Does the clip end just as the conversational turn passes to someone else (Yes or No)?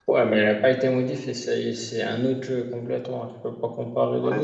Yes